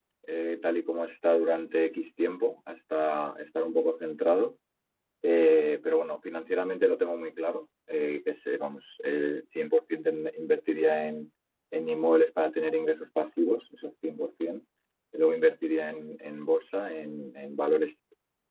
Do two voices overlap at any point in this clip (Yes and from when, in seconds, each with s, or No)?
No